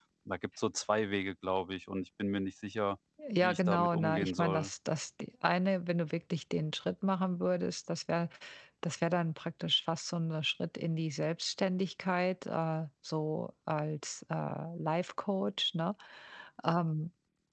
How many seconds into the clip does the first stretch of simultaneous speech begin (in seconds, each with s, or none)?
3.4 s